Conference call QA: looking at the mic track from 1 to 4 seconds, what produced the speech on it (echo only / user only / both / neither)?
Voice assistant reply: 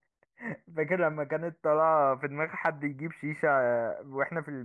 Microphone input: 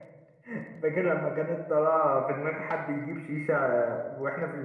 echo only